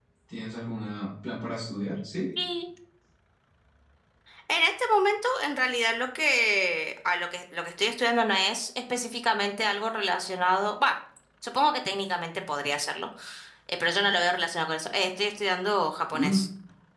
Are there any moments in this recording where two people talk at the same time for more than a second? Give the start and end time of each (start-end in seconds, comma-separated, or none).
none